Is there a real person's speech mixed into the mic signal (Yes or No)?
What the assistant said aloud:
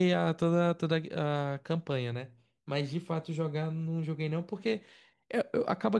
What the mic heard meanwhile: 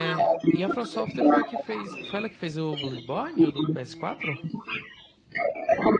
Yes